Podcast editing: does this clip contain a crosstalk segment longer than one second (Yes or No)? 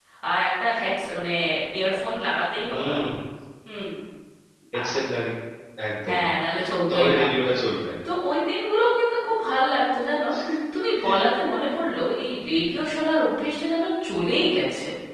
No